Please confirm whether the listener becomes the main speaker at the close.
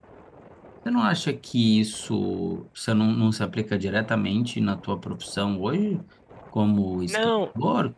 No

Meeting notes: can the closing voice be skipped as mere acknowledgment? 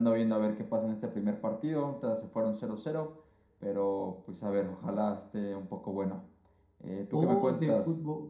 No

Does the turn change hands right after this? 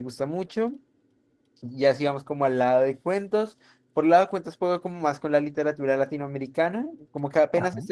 No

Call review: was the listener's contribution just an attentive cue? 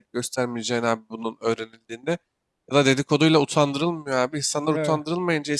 Yes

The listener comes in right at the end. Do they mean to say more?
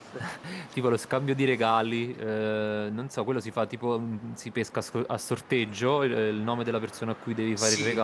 Yes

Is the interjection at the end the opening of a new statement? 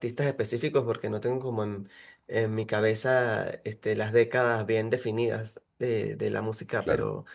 No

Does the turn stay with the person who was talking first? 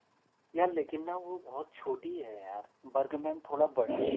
No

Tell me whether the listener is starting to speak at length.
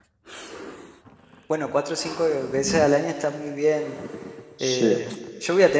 No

